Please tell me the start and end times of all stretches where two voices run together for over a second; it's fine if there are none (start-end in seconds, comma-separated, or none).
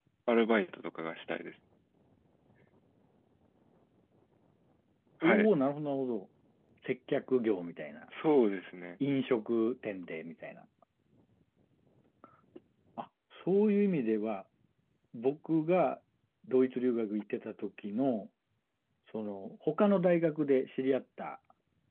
none